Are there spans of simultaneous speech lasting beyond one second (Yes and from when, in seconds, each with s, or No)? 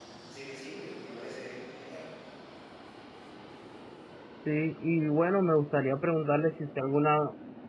No